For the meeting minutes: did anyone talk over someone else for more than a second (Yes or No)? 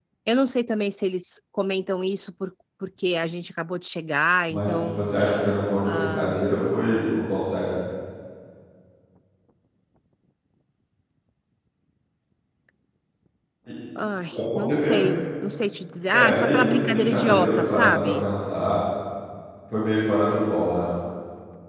Yes